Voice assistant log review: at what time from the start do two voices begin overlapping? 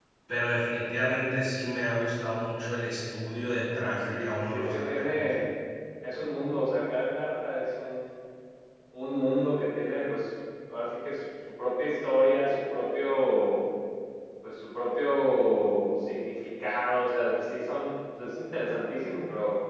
3.7 s

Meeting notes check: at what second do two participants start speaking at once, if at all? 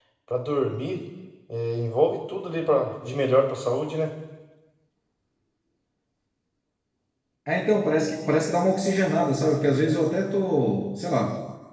none

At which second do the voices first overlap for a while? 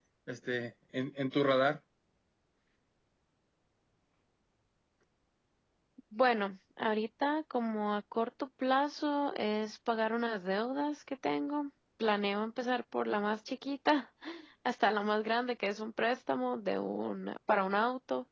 none

